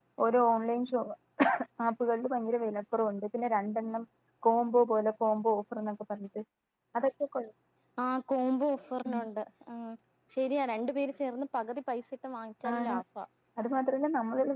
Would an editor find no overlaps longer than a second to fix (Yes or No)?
Yes